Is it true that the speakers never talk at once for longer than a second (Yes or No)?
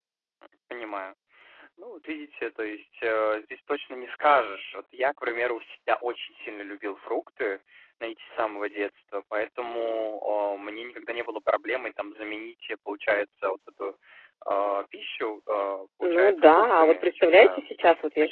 No